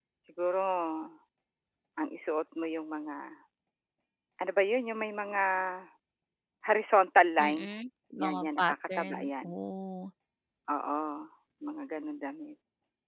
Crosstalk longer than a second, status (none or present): present